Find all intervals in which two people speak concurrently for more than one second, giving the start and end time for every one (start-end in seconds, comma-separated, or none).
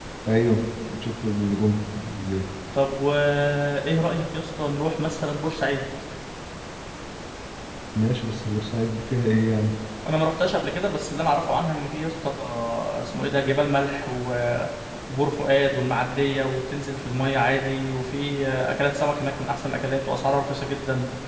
none